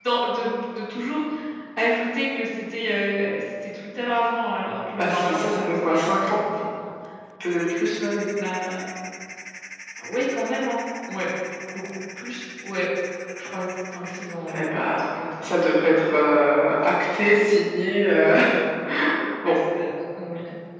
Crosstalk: present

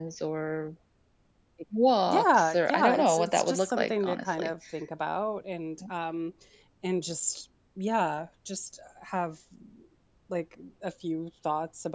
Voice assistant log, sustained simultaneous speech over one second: present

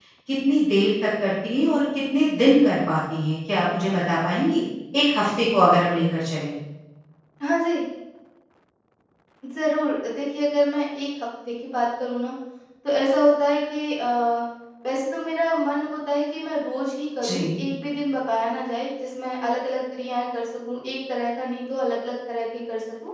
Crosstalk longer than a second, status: none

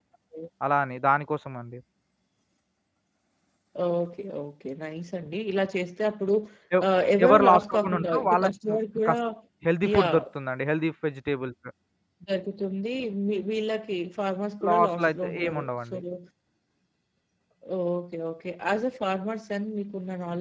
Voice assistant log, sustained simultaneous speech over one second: present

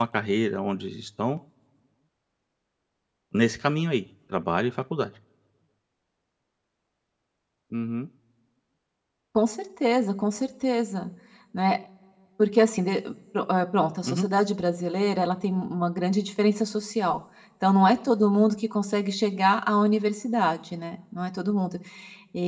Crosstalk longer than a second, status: none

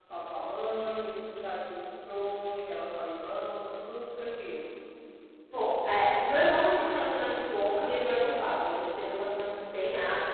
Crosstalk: none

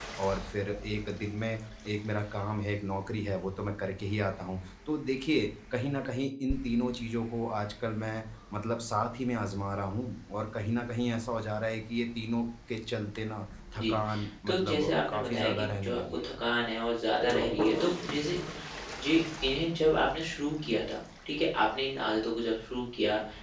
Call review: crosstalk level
present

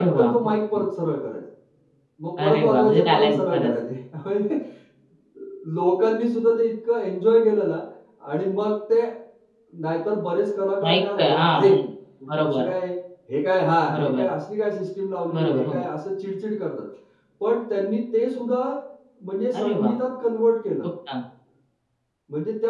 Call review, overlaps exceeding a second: present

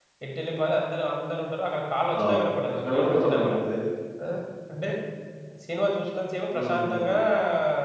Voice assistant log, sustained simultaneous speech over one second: present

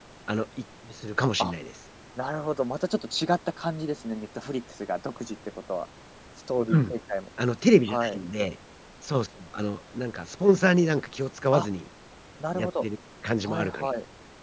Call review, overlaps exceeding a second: none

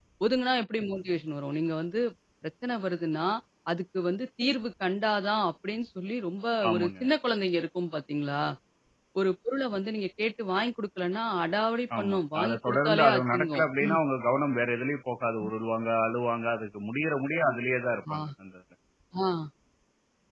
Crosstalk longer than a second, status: present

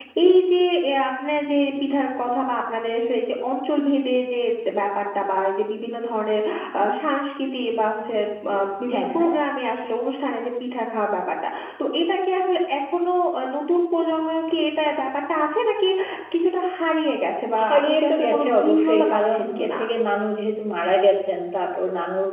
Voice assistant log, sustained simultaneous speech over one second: present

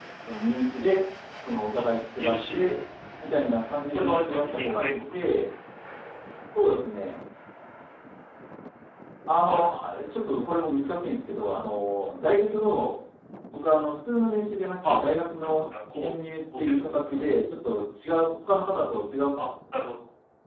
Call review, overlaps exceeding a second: present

